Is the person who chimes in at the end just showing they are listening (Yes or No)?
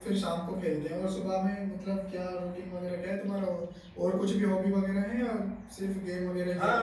No